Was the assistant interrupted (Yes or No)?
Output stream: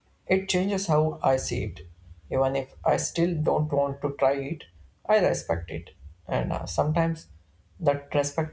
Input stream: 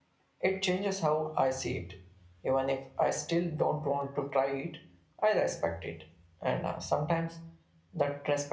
No